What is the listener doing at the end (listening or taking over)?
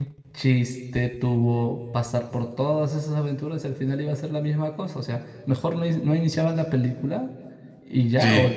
listening